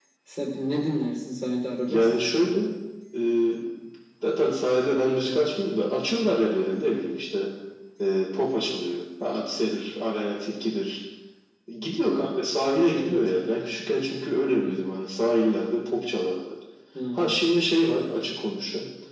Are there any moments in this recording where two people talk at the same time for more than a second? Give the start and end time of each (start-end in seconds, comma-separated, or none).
none